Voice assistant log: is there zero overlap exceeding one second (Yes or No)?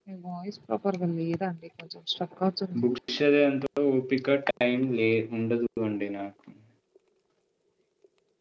Yes